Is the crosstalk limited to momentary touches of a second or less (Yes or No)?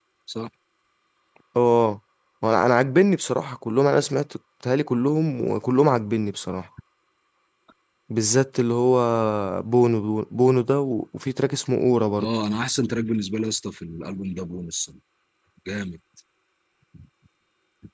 Yes